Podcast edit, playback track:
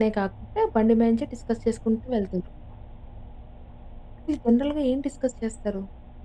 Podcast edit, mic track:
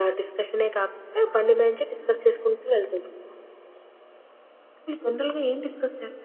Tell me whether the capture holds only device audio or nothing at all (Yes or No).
Yes